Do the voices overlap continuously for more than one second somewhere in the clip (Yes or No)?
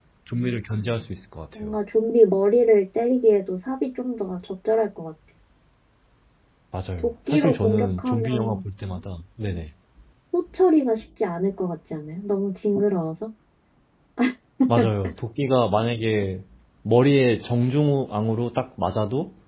Yes